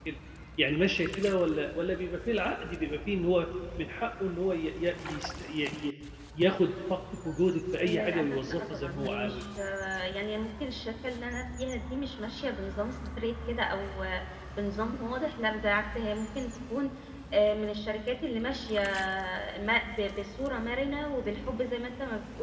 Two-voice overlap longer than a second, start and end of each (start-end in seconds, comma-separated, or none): 7.8-9.4